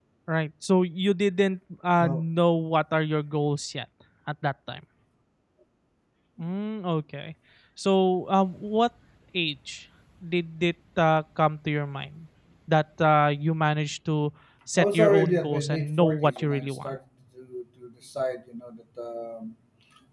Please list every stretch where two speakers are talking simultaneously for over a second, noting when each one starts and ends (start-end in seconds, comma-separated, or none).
14.8-16.9